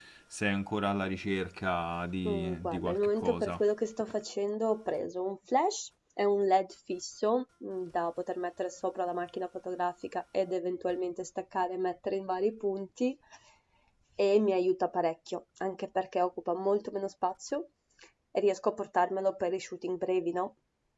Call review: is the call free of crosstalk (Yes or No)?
No